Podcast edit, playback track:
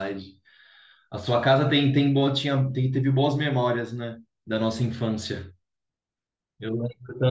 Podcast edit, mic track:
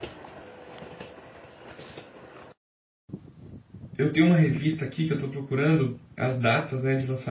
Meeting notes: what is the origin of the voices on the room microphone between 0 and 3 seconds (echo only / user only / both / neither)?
neither